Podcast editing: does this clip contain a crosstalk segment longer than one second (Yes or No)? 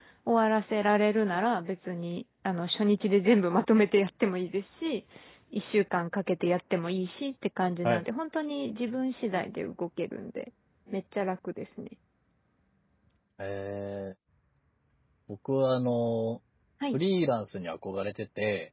No